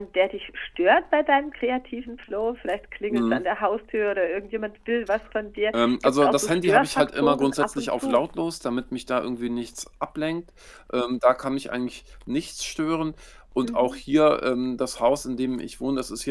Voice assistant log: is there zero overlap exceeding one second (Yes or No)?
No